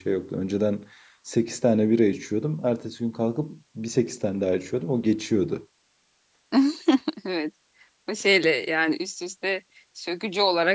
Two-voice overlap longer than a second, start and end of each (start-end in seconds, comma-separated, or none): none